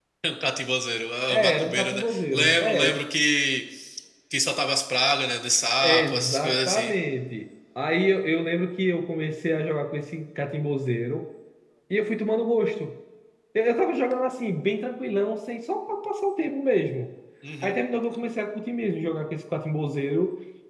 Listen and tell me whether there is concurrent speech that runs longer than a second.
Yes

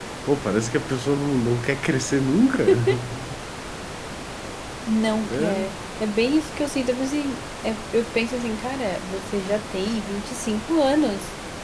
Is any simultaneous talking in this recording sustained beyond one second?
No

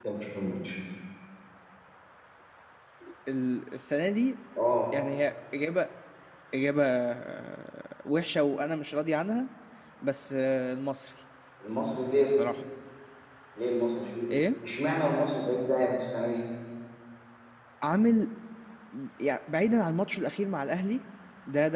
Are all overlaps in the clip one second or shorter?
Yes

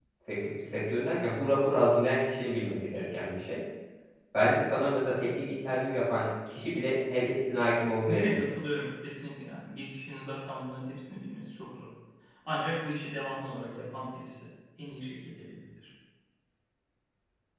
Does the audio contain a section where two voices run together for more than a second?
No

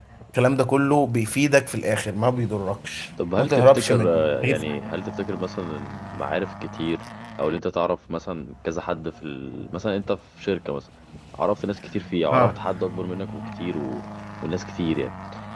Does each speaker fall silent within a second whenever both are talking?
No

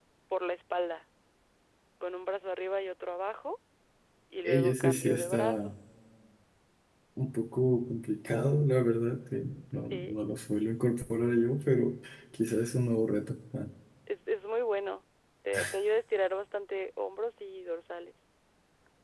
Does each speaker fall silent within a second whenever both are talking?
No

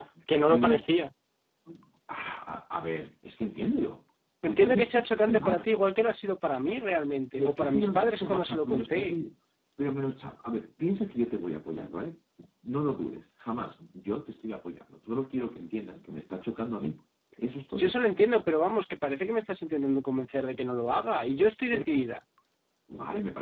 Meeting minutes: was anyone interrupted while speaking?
Yes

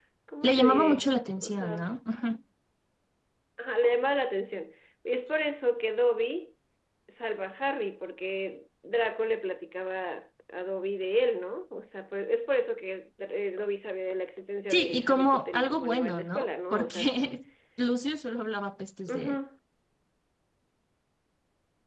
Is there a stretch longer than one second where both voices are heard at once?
Yes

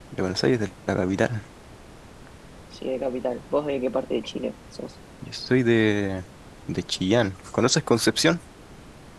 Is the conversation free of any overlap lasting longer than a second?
Yes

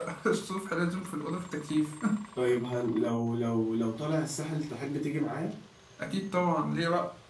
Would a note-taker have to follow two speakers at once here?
No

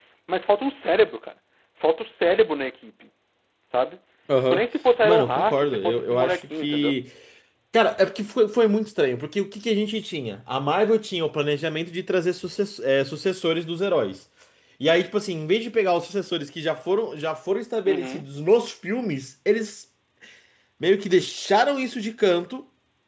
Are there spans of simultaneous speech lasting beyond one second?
Yes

